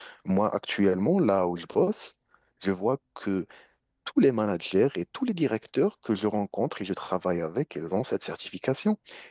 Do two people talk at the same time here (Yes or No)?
No